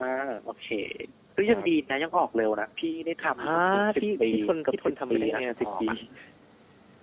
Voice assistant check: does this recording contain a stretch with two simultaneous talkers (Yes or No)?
Yes